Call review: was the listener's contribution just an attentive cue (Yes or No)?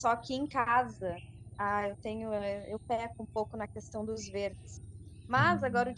Yes